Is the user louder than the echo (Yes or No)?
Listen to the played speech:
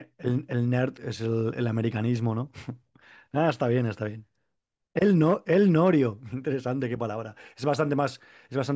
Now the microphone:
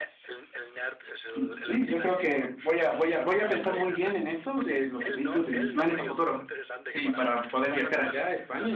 Yes